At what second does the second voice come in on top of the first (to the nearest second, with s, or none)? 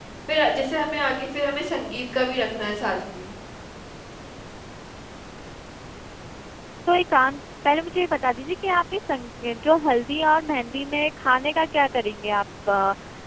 none